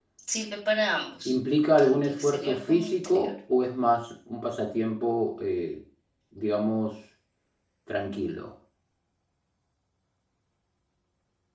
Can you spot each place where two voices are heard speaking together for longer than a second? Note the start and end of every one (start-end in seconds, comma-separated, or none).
1.8-3.3